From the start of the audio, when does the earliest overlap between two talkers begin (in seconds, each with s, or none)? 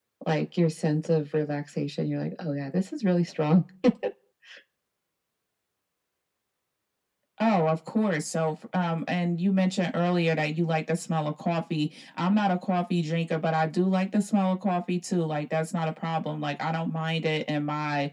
none